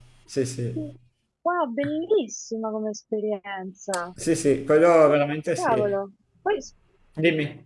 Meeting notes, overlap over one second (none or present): none